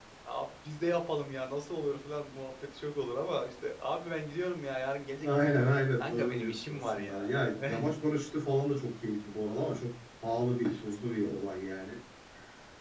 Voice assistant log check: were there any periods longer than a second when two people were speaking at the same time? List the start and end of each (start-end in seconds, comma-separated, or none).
5.2-7.7